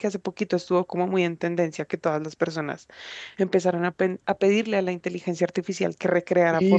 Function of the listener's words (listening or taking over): taking over